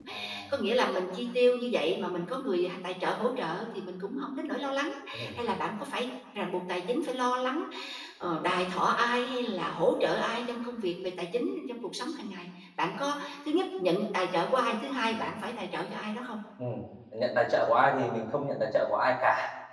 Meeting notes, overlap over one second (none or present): none